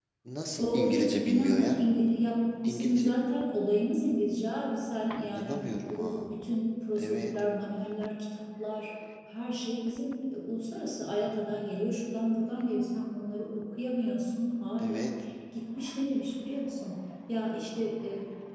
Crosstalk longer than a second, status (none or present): present